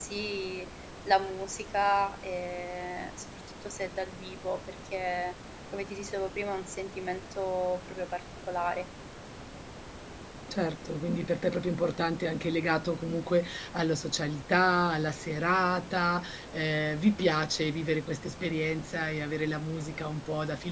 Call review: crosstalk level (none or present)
none